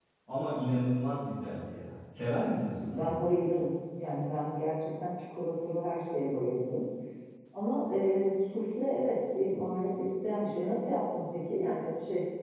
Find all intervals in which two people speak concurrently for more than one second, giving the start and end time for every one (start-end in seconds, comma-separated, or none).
none